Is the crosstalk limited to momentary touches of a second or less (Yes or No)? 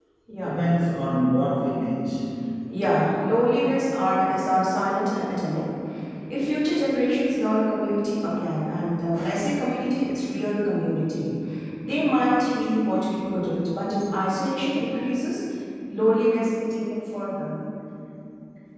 Yes